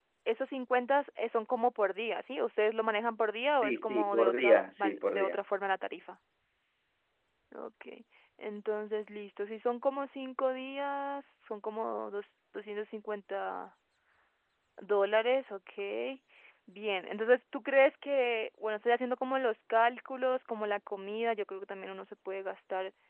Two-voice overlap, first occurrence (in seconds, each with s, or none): 3.6 s